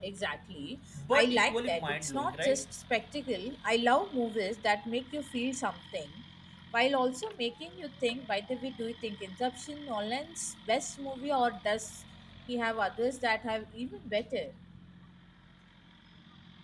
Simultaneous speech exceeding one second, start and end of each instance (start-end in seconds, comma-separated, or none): 1.1-2.6